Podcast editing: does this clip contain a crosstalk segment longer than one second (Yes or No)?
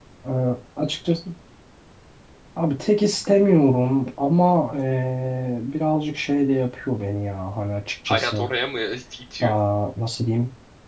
No